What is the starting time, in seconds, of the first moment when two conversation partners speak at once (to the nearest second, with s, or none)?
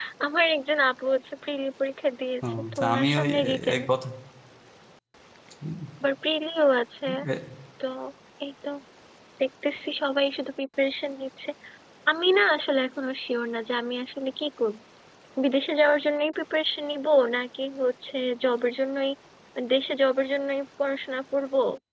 2 s